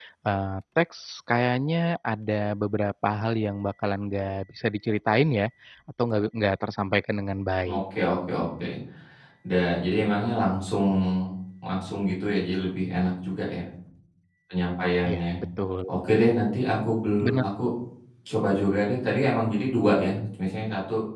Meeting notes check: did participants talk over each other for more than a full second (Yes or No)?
No